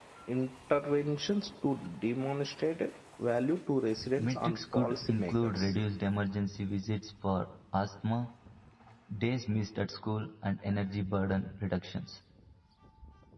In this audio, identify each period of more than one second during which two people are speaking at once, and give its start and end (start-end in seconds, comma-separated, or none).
4.2-5.7